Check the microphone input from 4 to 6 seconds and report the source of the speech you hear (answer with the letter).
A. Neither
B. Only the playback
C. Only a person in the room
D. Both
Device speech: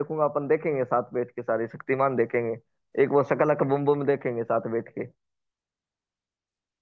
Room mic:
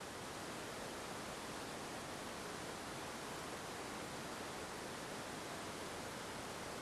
A